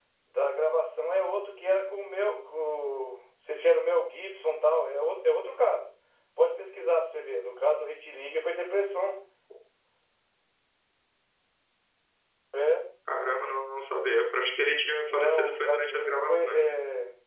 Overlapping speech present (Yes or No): Yes